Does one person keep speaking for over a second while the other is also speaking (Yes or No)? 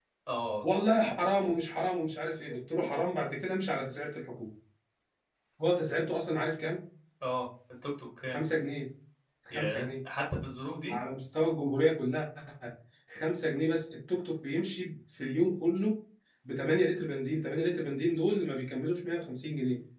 No